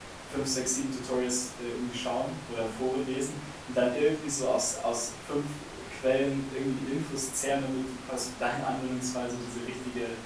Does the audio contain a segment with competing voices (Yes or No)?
No